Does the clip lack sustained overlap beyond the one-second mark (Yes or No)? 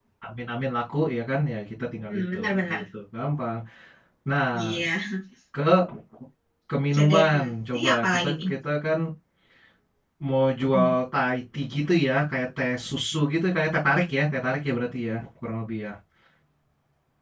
No